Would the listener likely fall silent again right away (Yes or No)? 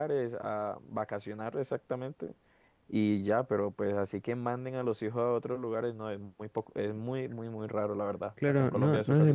No